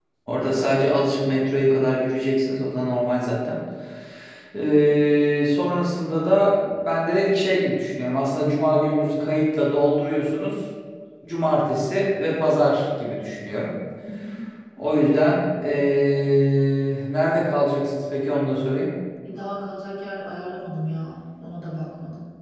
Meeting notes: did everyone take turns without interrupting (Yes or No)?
Yes